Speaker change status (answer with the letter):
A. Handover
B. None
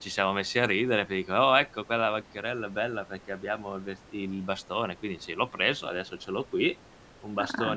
B